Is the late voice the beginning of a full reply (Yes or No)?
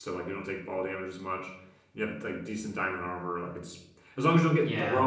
No